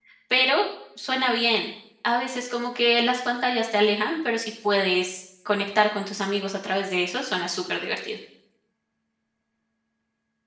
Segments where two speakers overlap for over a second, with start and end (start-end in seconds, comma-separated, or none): none